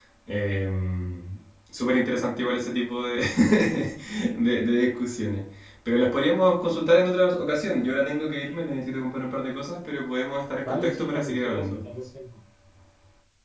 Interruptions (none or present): present